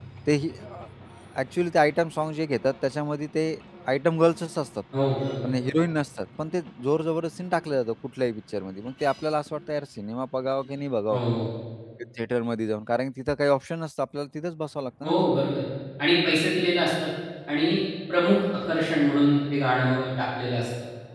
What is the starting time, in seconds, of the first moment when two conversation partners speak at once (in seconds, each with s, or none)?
none